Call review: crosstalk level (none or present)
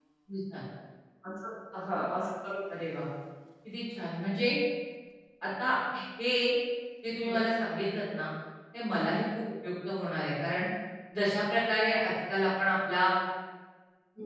none